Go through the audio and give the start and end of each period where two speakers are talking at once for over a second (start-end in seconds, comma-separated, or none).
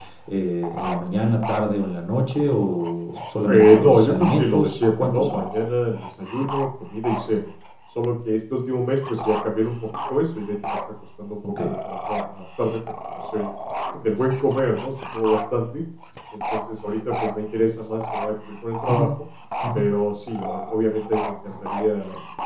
3.5-5.4